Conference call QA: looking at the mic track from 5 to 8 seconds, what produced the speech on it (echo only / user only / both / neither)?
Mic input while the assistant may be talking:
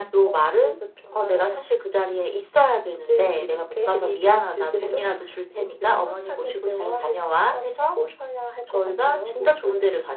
echo only